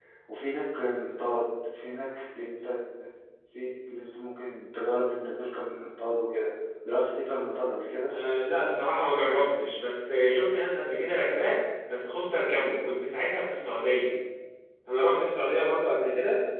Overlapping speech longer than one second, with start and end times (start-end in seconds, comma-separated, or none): none